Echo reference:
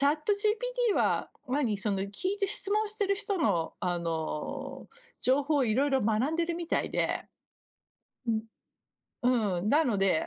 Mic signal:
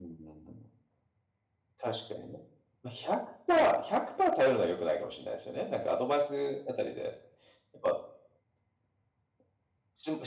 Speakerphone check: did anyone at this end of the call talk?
Yes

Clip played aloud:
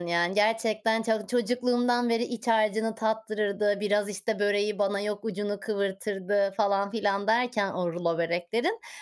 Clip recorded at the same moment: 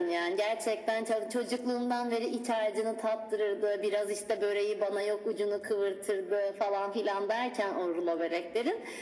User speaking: No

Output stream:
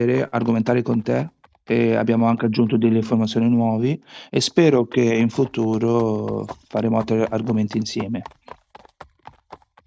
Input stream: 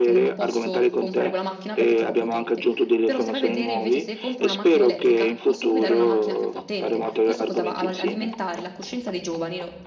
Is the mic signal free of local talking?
No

